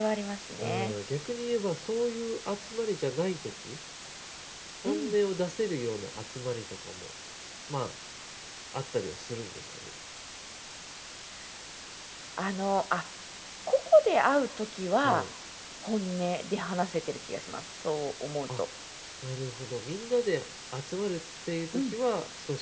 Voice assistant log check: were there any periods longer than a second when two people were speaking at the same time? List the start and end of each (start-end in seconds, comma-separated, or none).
none